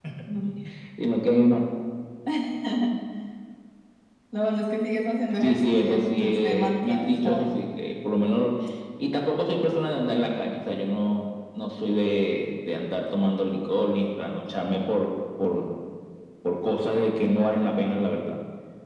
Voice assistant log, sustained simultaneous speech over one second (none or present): present